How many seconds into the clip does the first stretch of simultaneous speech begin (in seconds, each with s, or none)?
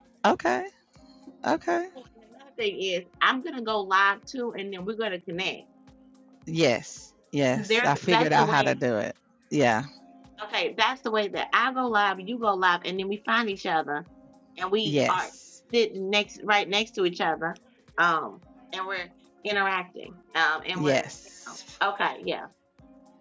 7.5 s